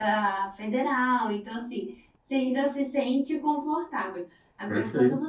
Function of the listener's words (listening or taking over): listening